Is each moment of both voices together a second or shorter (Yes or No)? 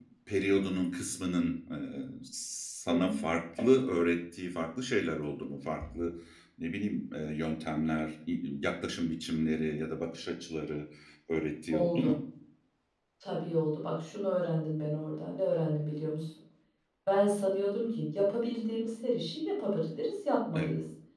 Yes